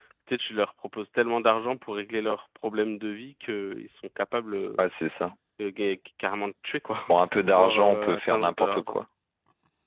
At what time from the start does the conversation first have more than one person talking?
7.1 s

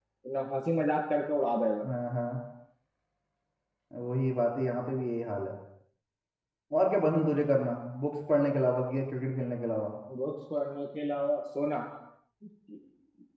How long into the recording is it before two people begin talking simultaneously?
none

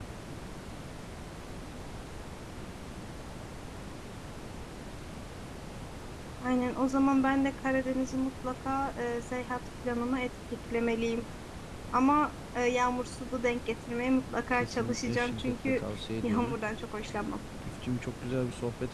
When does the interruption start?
14.5 s

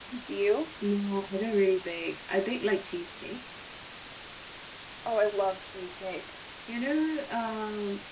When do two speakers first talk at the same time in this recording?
none

